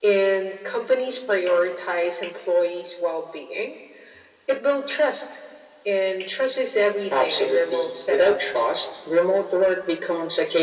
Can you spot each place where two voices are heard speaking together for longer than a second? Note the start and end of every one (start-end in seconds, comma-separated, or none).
7.1-8.7